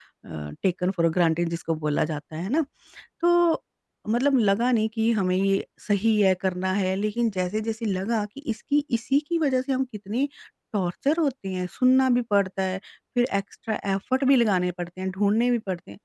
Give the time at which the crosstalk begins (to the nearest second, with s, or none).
none